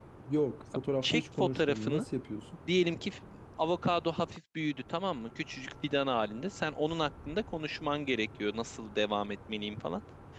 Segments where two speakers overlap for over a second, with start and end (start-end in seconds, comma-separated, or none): 0.8-2.0